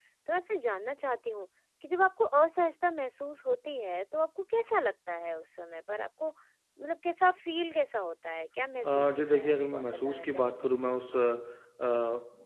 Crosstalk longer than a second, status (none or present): present